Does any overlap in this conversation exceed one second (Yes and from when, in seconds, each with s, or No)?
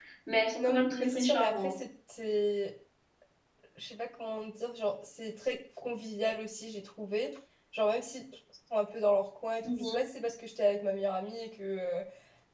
Yes, from 0.6 s